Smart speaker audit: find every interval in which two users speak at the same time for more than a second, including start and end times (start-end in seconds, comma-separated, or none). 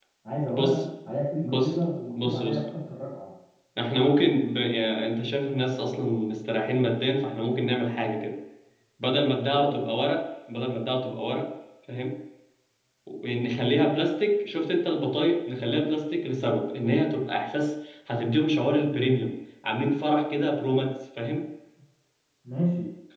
none